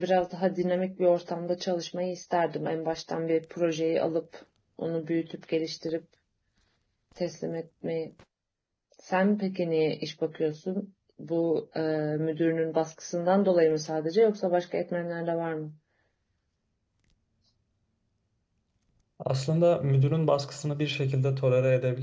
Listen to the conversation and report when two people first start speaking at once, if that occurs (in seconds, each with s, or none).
none